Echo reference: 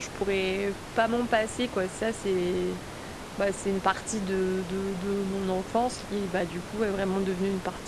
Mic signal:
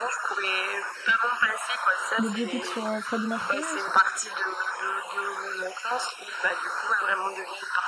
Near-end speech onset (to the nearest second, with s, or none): 2 s